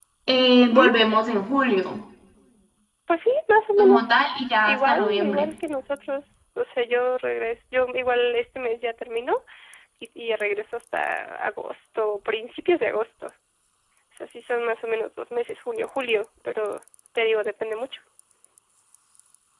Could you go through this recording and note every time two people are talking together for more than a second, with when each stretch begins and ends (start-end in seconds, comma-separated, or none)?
3.8-5.5